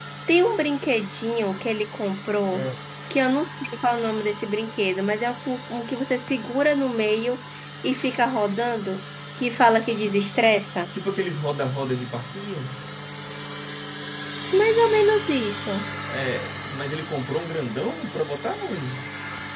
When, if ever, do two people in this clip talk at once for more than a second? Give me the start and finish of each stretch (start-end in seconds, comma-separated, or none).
none